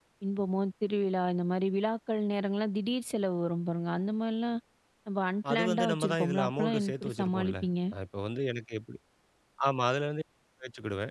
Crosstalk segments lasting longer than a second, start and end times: 5.5-7.7

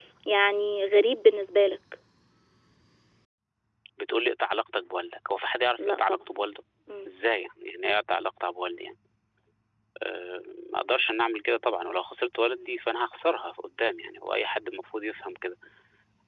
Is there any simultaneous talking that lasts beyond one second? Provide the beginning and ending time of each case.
none

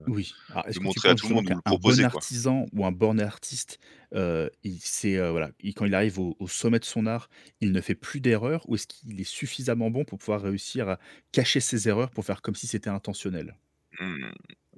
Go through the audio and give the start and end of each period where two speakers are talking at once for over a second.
0.8-2.1

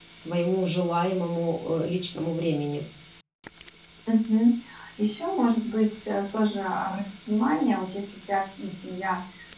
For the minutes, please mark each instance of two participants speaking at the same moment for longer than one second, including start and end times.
none

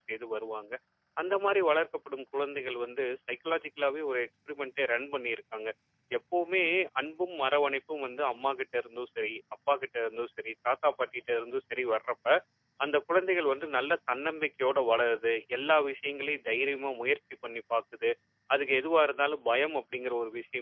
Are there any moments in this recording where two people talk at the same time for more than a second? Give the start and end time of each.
none

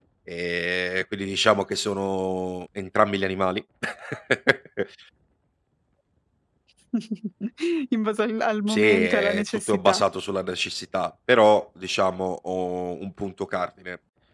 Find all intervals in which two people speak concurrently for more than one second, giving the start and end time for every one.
8.7-10.0

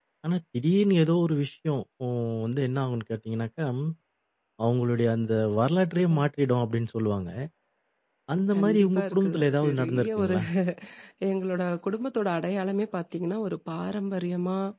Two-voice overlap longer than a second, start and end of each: 8.5-10.3

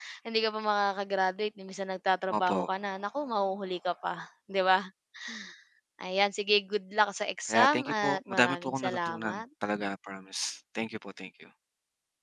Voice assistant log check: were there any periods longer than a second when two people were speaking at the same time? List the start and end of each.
7.5-9.4

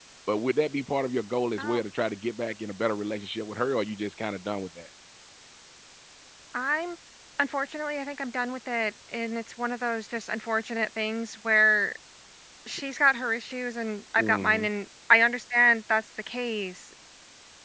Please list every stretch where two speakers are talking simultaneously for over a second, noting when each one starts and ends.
none

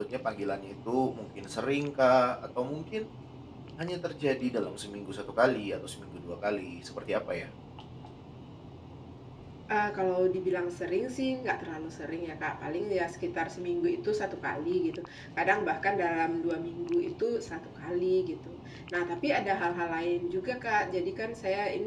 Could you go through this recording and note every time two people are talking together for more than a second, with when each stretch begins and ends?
none

